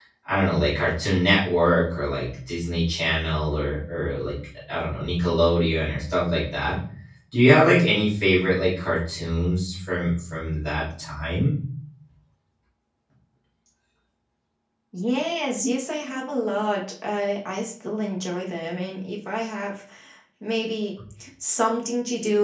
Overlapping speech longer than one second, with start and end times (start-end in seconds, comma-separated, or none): none